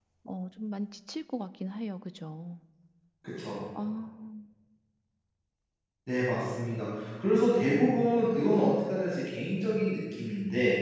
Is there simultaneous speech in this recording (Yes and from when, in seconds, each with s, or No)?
No